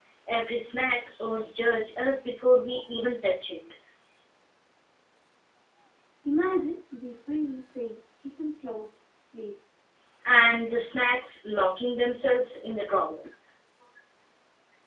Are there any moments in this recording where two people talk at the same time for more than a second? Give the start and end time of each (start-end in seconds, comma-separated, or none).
none